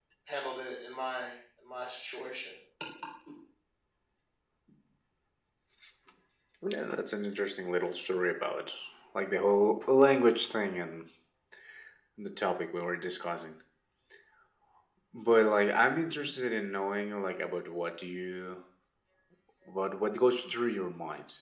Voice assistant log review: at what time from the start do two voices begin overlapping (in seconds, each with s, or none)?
none